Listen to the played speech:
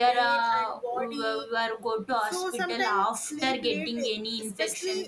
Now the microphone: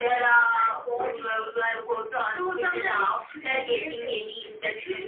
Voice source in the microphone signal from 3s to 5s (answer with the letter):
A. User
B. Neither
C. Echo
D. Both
C